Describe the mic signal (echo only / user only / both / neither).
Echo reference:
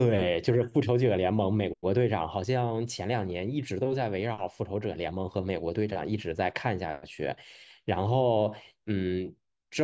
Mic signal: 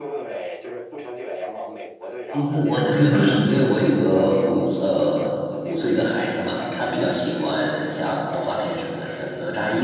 both